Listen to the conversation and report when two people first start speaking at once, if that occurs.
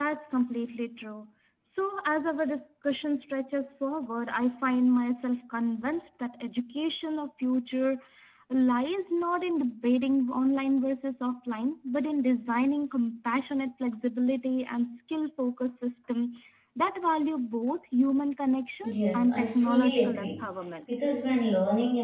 18.8 s

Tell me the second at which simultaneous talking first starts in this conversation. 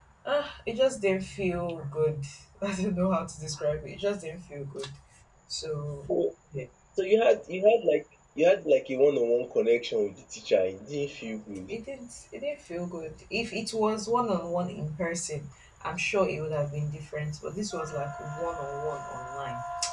none

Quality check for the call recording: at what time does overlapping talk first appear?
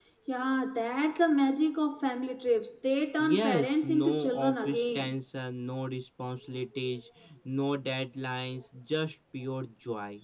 3.2 s

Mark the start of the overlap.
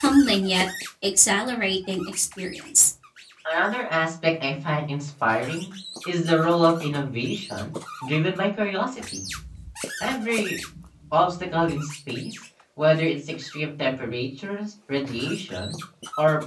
none

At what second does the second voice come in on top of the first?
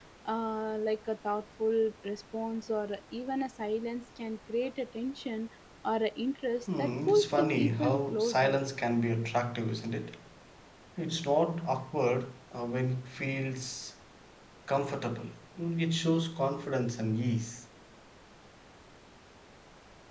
6.7 s

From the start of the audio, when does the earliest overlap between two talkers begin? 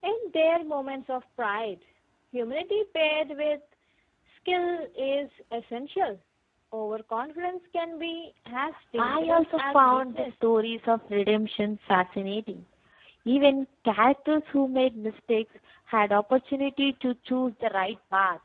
9.0 s

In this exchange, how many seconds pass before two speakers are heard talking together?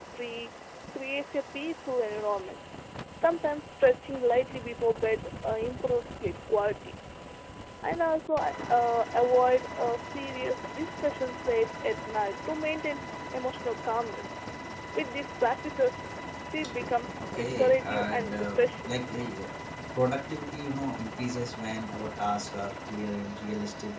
17.2 s

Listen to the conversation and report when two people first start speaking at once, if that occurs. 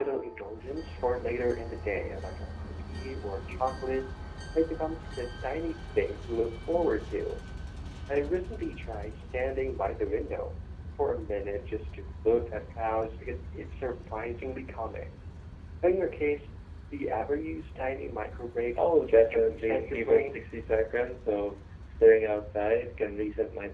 18.8 s

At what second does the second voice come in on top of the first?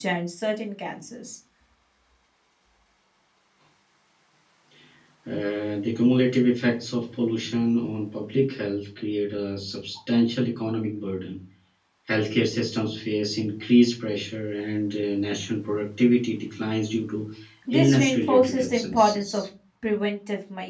17.7 s

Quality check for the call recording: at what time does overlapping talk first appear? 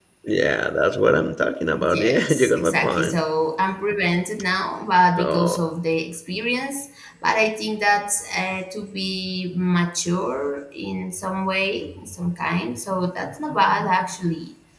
1.9 s

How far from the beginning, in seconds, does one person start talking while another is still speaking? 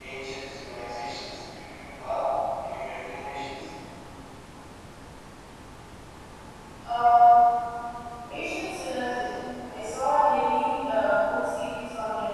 none

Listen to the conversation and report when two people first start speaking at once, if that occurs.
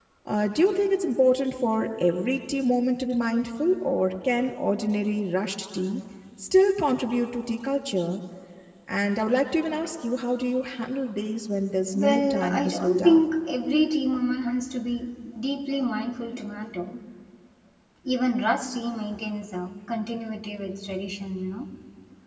11.9 s

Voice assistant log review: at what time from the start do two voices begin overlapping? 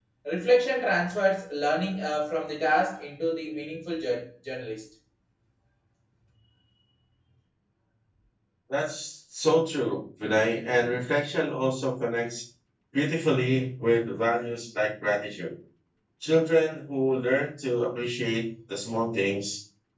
none

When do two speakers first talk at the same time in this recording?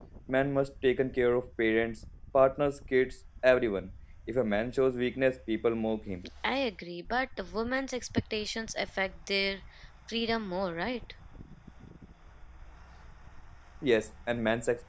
none

